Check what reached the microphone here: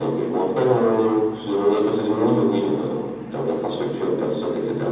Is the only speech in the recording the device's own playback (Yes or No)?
Yes